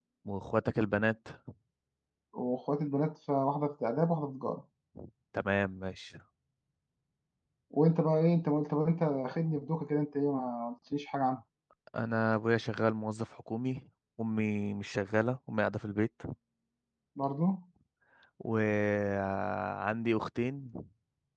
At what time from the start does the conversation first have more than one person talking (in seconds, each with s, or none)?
none